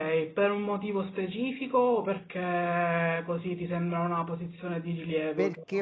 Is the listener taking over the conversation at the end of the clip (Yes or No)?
Yes